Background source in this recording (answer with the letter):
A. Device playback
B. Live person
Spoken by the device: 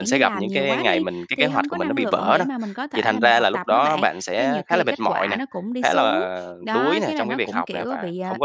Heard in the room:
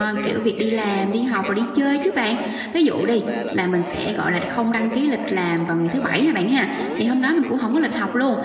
A